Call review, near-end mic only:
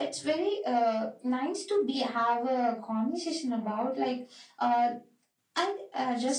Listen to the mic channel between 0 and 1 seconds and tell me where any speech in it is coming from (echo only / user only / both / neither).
echo only